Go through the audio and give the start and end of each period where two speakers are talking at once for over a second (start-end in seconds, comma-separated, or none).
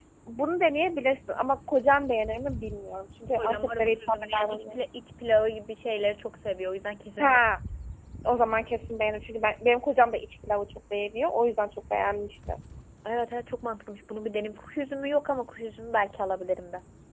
3.4-4.6